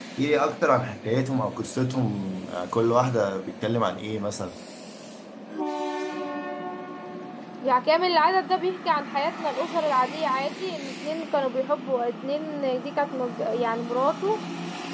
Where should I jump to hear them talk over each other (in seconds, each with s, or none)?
none